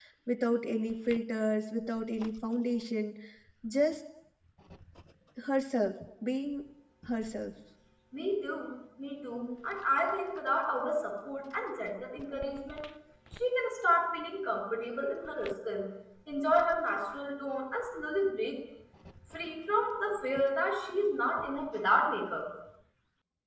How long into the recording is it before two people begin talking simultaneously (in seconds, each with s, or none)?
none